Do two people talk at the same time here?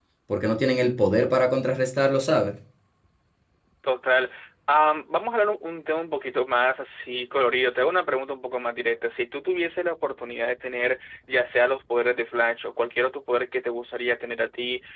No

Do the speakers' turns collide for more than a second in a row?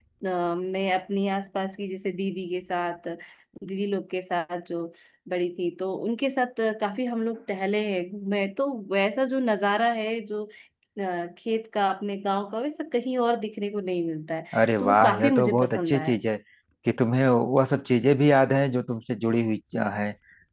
Yes, from 14.8 s

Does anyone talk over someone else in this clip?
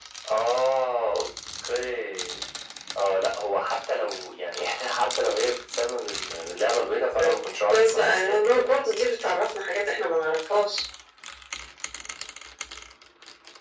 Yes, from 7.1 s

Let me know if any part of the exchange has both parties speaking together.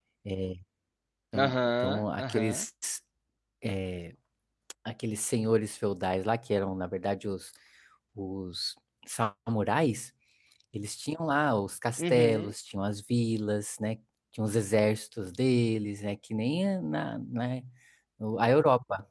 Yes, from 1.4 s

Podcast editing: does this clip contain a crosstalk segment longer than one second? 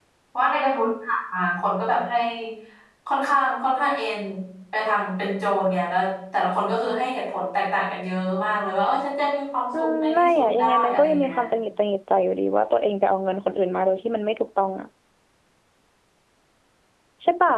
Yes, from 9.7 s

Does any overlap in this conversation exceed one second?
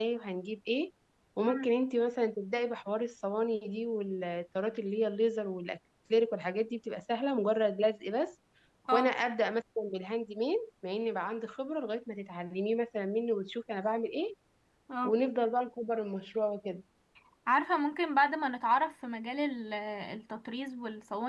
No

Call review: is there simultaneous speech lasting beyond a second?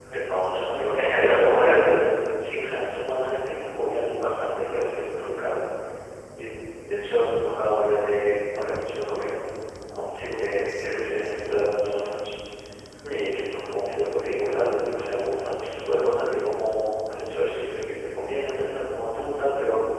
Yes, from 0.6 s

